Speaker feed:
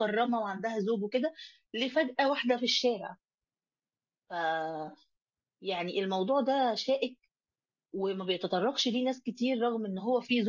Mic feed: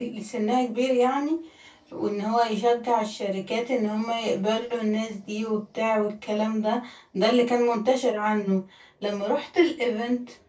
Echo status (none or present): none